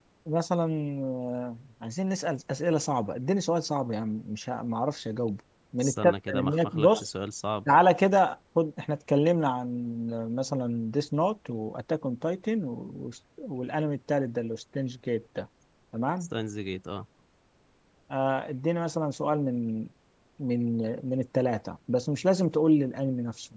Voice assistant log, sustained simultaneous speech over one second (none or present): present